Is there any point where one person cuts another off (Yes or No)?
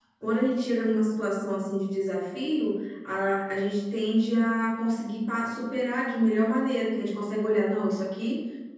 No